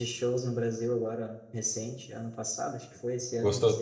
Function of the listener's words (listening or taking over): taking over